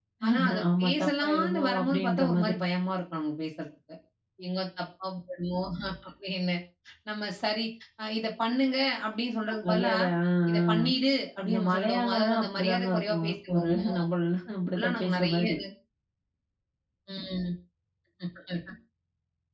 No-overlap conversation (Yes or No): No